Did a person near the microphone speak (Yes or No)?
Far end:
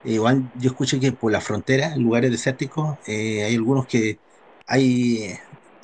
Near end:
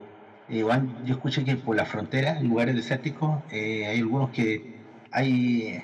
No